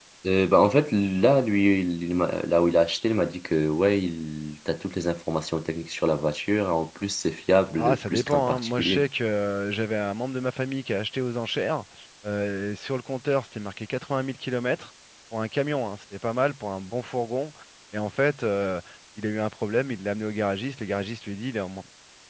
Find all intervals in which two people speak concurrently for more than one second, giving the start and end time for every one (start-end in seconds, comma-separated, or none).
7.8-9.1